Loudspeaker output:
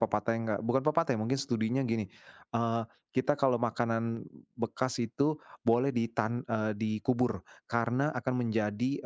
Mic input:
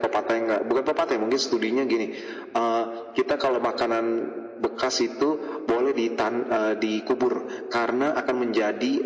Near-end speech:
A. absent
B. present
A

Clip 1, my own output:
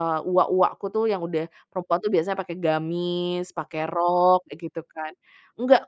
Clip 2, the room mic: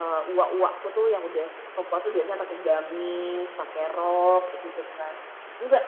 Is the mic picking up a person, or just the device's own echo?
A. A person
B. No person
B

